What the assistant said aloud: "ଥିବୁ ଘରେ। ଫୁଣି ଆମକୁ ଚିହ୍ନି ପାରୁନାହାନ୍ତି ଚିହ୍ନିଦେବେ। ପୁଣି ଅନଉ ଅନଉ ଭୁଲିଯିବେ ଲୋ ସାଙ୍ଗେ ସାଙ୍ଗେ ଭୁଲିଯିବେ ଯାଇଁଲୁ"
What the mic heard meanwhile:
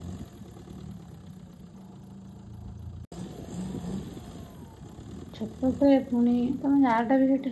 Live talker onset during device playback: 5.4 s

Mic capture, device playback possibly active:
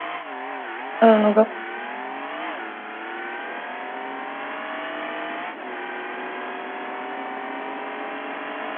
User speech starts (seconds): 1.0 s

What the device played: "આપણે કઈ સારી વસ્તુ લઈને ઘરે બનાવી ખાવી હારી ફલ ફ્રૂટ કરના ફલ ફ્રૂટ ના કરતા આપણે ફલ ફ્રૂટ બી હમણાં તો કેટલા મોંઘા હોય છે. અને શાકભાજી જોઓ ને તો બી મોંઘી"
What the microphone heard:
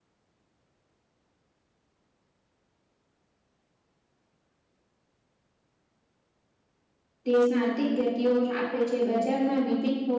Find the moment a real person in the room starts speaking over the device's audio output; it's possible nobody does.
7.3 s

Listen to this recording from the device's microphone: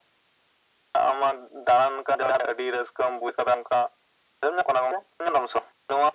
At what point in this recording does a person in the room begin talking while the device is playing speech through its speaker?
none

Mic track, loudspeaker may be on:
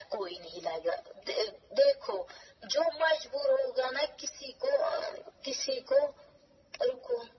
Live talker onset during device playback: none

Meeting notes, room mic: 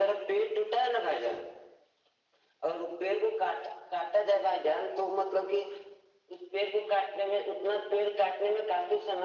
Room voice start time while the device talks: none

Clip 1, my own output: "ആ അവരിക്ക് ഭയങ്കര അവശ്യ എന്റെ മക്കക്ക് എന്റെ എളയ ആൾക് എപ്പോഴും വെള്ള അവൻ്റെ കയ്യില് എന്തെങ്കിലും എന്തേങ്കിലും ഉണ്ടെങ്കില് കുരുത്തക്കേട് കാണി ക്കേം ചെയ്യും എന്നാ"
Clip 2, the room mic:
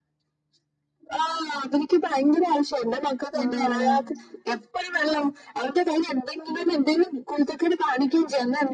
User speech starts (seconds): 3.4 s

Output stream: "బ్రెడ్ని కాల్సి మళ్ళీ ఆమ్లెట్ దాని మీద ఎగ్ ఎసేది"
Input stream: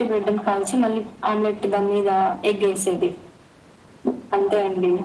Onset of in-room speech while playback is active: none

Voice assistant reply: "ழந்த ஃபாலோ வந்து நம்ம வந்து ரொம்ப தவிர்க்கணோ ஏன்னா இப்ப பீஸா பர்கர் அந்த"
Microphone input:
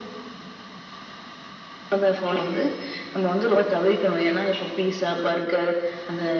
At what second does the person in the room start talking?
none

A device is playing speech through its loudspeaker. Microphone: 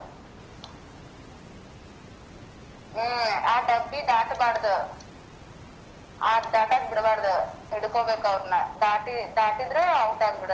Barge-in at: none

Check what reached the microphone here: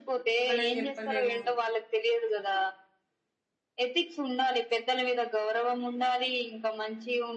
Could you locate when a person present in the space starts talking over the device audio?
0.5 s

